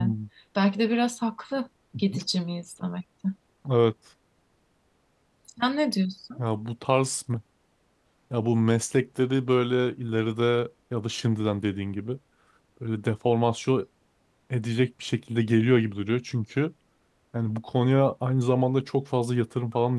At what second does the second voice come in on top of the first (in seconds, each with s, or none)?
none